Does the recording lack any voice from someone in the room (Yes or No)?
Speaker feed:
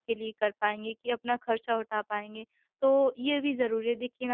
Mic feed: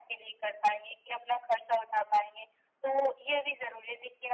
Yes